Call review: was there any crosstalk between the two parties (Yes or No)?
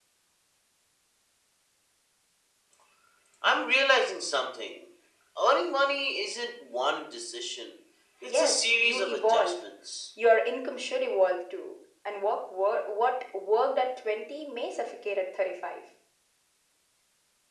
Yes